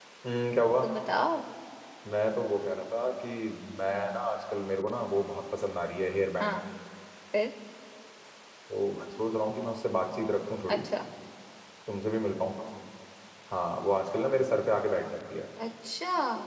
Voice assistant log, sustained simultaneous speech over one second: none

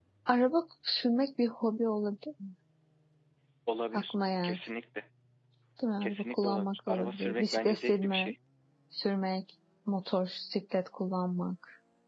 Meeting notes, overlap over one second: present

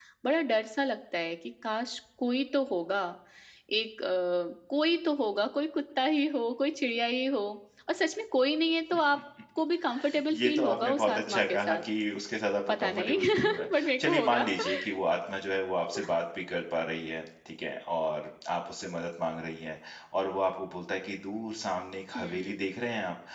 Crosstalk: present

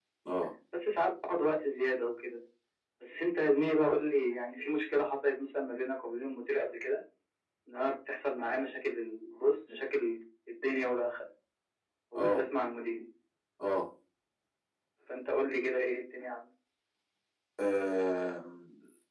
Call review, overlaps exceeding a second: none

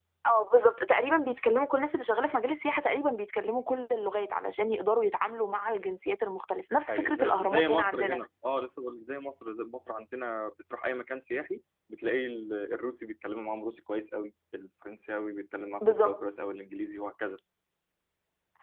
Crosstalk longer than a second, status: present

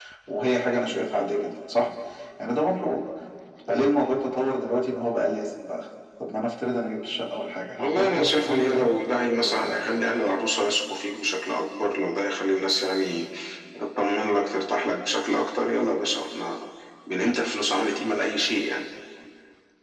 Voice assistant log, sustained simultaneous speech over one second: present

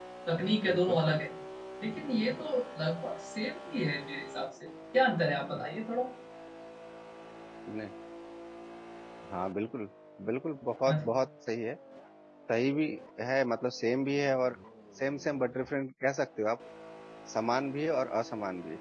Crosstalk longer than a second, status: none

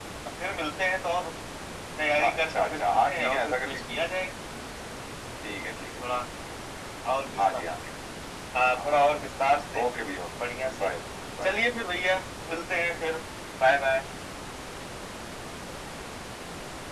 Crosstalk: present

